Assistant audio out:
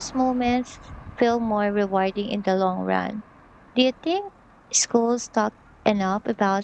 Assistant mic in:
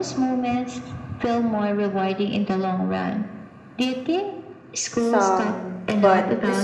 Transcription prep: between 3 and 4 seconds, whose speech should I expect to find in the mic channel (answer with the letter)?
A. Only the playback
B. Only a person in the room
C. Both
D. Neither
A